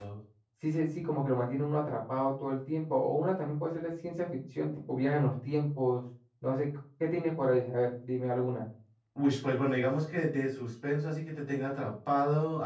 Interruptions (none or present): none